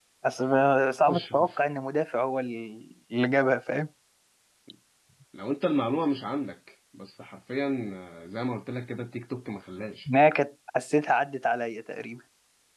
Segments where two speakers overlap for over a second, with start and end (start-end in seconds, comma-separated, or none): none